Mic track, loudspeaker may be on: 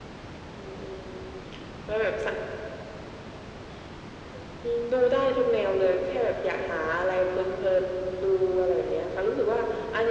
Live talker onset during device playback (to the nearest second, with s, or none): none